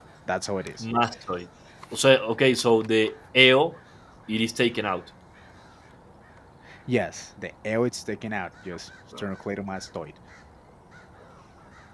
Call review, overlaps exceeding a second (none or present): none